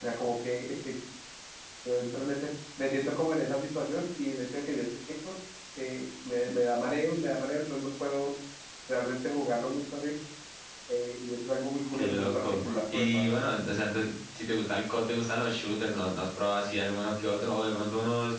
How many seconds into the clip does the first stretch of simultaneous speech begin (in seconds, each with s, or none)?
11.9 s